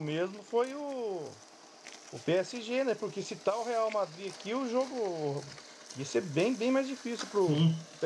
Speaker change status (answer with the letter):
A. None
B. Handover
B